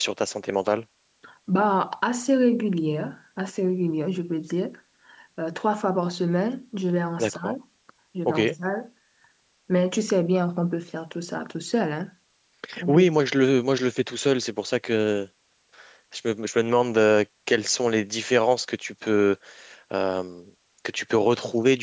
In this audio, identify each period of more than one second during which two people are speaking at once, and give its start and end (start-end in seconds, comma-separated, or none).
none